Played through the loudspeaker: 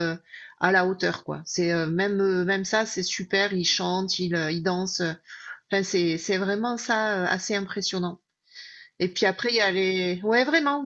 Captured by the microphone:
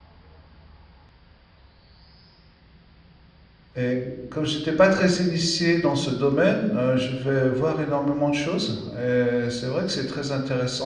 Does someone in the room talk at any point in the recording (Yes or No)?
Yes